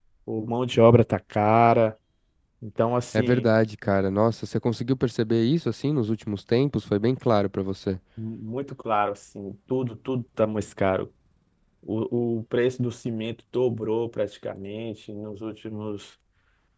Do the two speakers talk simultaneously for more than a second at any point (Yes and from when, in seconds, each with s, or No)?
No